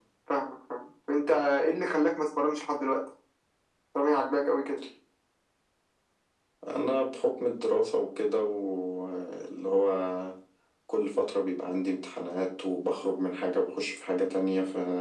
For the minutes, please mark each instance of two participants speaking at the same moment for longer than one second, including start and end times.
none

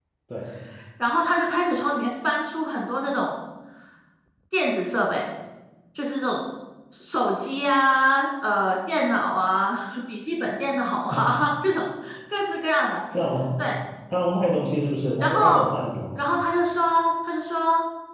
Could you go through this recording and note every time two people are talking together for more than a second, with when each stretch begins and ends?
none

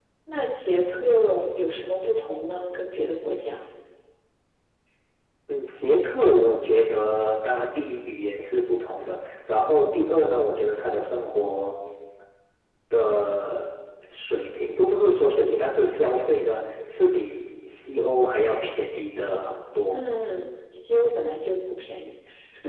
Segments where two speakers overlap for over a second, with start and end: none

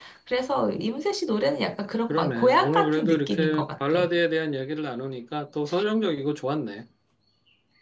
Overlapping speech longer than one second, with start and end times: 2.1-4.0

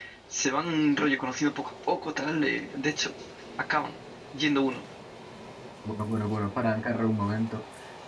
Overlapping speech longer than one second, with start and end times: none

